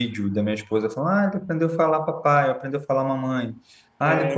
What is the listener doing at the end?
listening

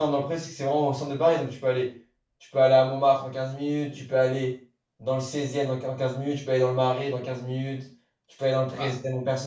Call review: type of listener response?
listening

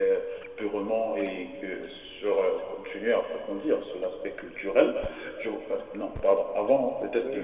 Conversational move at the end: taking over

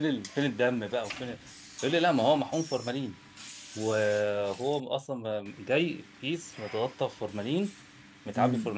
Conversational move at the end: listening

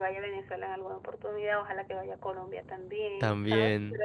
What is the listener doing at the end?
listening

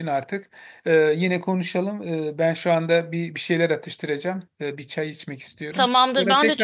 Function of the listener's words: taking over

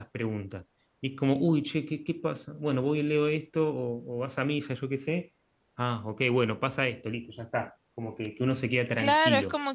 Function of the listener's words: taking over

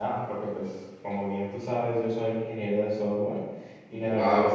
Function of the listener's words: listening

